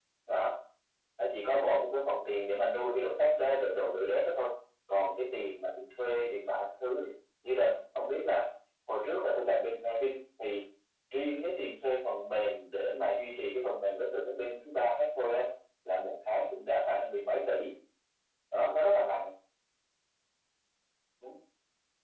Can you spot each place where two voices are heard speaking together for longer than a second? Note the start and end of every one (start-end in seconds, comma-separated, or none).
none